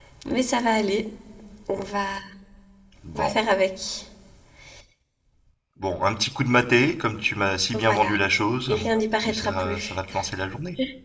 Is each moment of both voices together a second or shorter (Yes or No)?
No